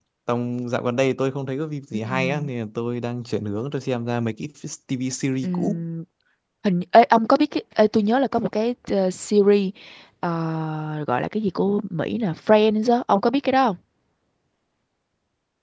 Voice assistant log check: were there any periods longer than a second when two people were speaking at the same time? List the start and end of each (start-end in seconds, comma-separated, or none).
none